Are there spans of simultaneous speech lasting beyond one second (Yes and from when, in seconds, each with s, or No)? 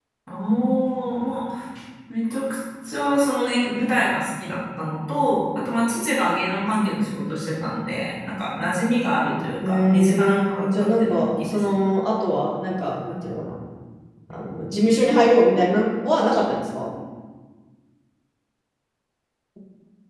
Yes, from 9.6 s